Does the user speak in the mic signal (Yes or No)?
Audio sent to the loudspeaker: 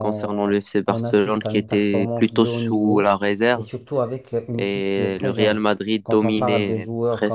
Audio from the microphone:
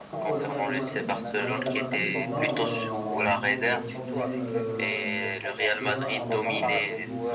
Yes